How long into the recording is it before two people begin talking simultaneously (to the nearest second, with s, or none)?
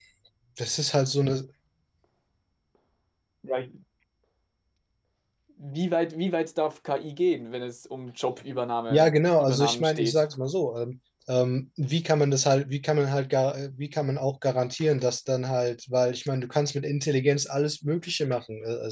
9 s